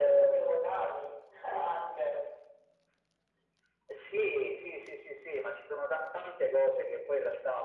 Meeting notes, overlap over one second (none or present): none